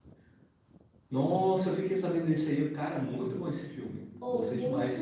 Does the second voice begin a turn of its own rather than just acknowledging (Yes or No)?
Yes